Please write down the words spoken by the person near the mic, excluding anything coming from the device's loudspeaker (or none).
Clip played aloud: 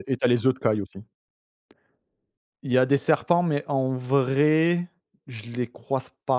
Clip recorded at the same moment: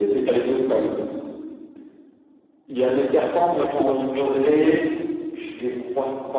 Ouais, plutôt dans le centre je pense.